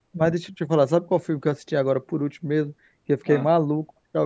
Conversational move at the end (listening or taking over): listening